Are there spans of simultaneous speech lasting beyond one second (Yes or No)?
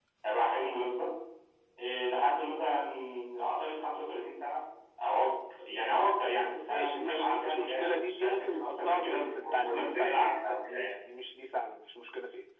Yes